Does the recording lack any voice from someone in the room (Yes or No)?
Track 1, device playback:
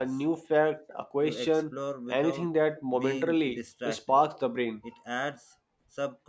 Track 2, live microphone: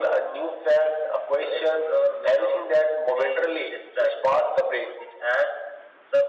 Yes